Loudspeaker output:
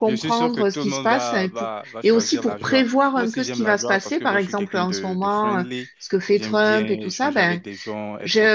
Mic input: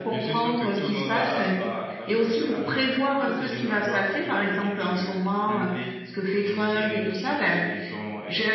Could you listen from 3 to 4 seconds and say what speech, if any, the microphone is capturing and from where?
echo only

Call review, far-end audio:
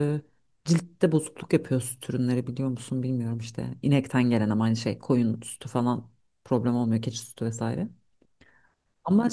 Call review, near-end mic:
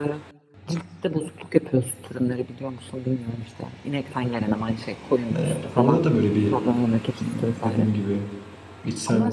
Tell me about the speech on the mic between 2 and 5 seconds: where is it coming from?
echo only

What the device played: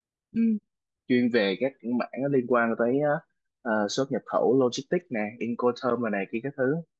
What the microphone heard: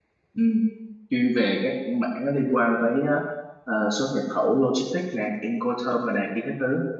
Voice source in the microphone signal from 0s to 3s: echo only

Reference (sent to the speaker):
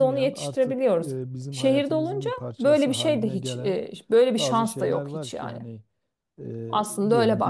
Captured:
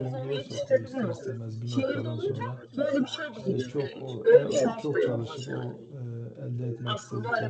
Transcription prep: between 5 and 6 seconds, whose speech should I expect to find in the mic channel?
both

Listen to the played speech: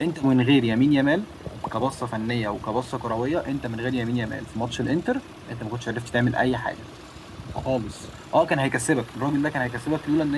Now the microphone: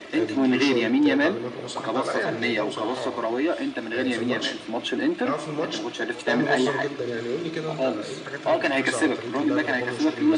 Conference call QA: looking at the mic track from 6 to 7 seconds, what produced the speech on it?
both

